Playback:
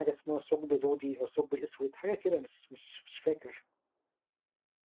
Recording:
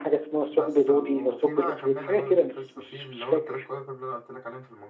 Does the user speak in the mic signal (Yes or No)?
Yes